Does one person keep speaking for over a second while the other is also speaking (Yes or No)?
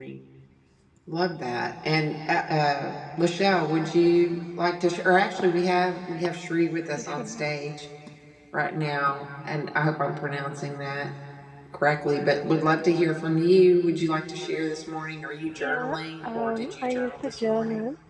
Yes